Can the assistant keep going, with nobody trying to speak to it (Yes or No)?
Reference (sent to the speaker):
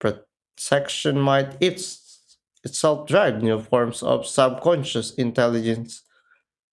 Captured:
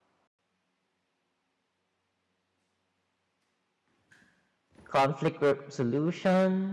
No